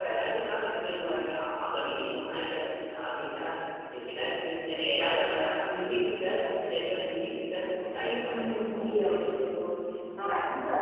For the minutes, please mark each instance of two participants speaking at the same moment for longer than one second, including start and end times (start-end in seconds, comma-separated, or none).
8.0-9.4